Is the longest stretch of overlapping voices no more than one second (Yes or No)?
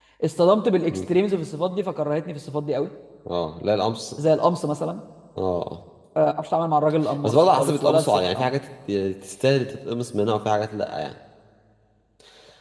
No